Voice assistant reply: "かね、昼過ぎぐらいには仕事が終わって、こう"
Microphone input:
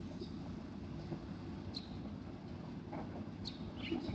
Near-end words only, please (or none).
none